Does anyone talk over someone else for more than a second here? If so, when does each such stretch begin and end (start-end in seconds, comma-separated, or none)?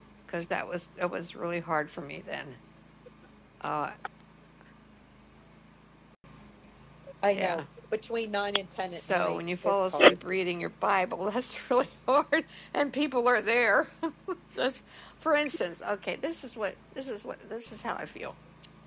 8.9-10.2